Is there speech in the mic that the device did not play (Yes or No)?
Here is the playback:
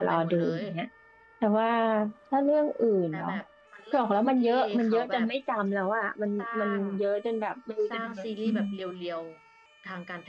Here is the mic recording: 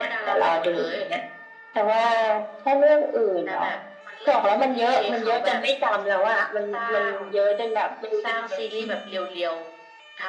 No